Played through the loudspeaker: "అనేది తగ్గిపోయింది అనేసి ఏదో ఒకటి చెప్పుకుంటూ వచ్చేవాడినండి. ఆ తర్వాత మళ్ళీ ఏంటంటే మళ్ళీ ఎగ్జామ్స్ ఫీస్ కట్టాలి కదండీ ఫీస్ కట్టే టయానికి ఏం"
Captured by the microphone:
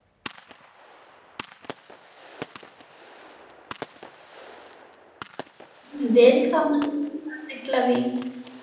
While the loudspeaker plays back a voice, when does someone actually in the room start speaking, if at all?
6 s

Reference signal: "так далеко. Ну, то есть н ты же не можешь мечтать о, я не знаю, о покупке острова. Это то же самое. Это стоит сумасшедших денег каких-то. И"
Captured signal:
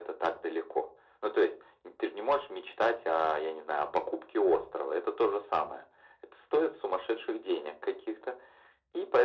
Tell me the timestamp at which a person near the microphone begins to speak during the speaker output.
none

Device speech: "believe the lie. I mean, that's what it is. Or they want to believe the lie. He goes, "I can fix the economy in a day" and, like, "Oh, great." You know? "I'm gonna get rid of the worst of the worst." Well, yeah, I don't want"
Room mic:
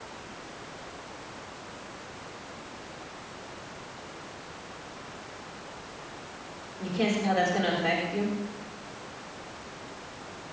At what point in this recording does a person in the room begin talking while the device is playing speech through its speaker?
7 s

